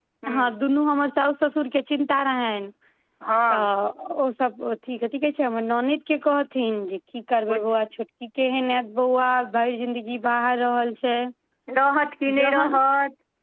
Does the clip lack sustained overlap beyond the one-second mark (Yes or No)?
Yes